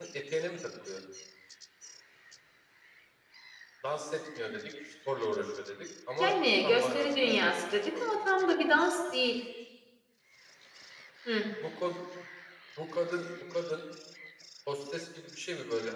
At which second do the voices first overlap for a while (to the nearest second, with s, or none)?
6 s